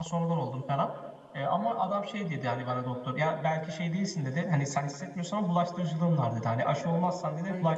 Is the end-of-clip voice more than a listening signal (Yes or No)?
No